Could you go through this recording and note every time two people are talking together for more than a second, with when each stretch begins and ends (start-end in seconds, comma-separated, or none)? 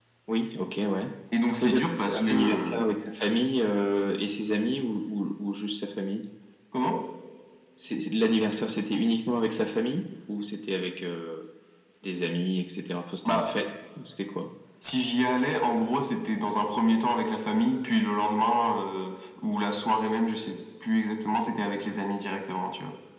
1.6-2.8